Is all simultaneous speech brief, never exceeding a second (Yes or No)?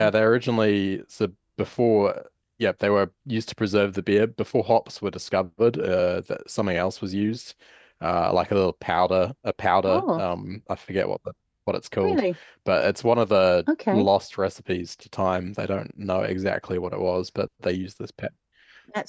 Yes